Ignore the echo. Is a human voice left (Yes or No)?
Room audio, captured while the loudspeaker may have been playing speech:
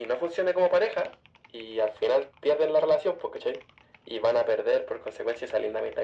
No